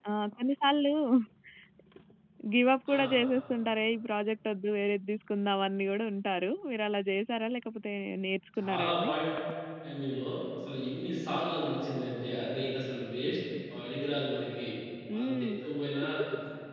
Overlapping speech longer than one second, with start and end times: none

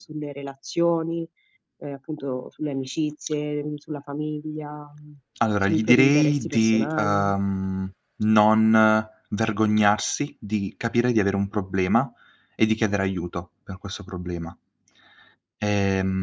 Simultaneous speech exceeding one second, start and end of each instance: 5.6-7.3

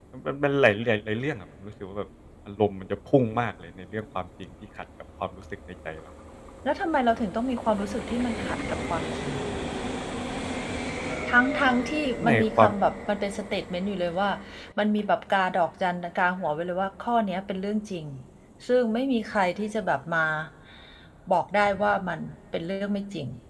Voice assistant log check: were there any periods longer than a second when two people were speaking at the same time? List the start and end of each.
none

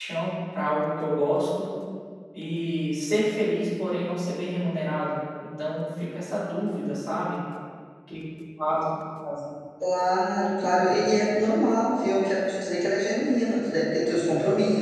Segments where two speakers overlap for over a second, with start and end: none

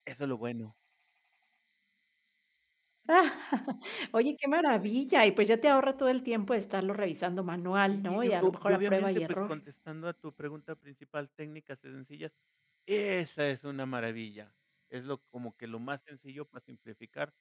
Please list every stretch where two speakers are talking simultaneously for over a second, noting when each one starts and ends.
7.9-9.6

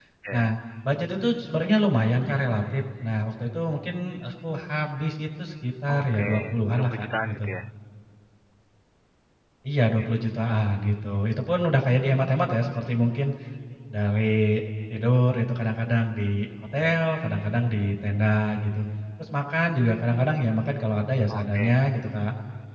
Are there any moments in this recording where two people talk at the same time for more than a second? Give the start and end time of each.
5.9-7.5

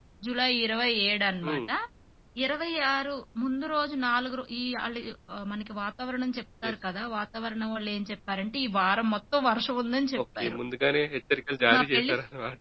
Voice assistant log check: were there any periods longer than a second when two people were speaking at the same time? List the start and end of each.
none

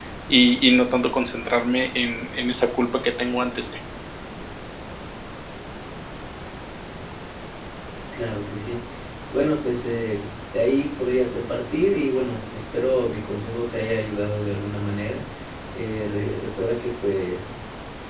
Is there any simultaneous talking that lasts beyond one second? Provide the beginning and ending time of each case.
none

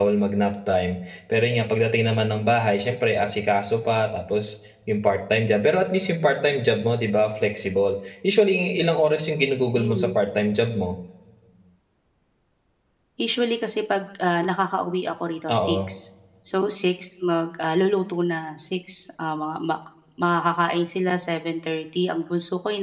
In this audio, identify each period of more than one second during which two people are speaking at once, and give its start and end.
none

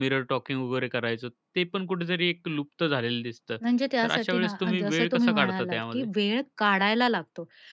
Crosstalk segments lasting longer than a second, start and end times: 4.0-6.1

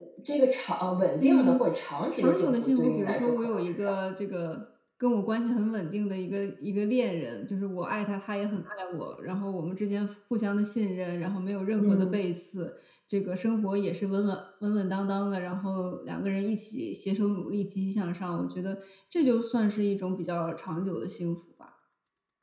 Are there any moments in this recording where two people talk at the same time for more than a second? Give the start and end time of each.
2.1-3.9

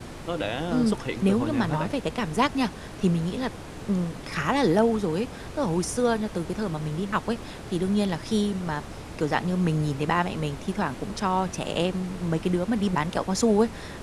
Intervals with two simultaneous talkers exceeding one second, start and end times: 0.7-1.9

